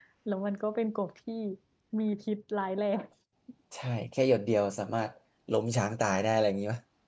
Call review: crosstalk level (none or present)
none